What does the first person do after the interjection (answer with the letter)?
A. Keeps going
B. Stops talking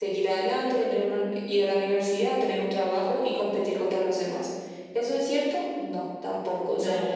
A